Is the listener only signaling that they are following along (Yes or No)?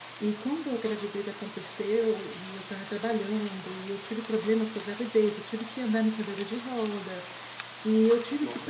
Yes